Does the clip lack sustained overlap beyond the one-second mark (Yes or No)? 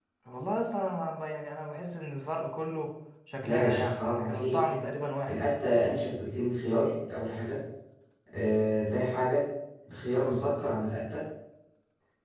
No